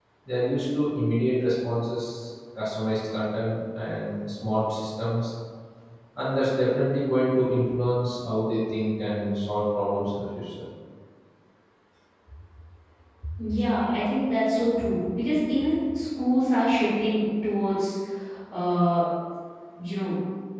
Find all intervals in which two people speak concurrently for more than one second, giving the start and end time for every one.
none

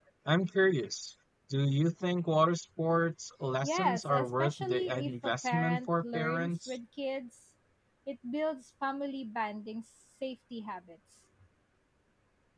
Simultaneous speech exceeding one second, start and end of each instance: 3.6-6.8

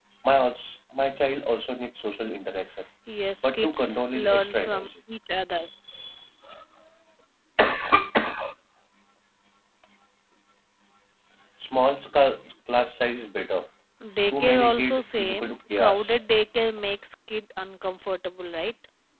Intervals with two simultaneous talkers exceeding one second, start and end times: 3.4-4.9, 14.3-16.2

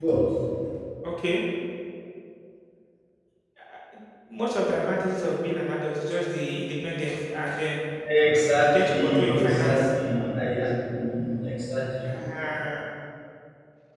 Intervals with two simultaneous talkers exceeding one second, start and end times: 8.6-9.9

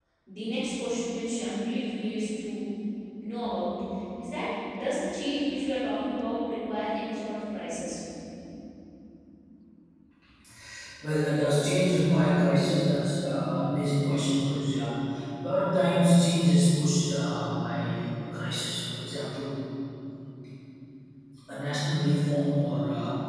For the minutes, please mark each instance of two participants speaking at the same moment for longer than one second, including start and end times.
none

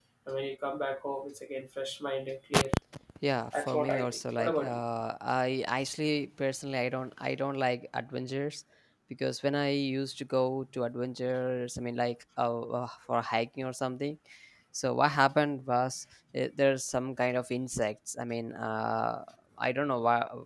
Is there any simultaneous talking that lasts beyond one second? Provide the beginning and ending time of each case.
3.5-4.8

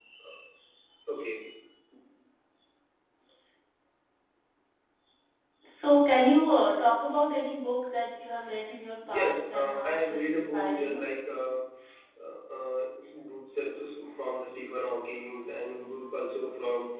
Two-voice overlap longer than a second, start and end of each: 9.1-11.0

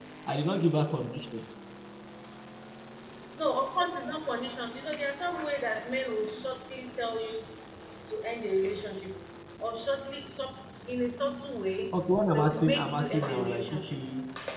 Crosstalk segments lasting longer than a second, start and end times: 12.3-14.0

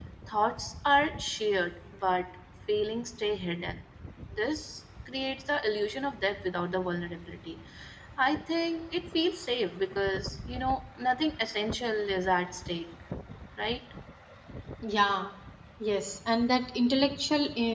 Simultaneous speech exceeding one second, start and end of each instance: none

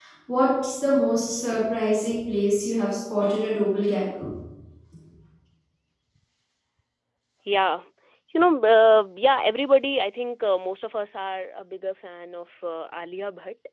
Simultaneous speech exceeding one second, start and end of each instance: none

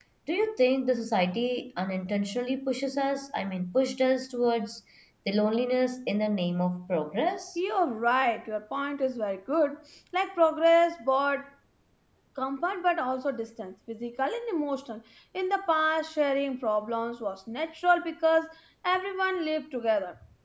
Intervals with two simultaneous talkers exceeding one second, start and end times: none

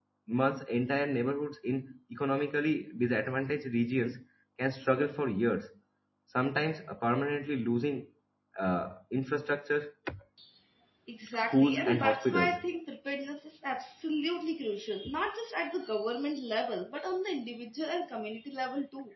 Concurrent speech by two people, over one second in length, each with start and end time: 11.3-12.6

